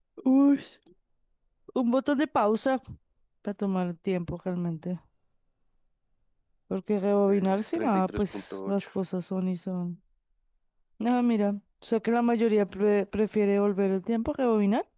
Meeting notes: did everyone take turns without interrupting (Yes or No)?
No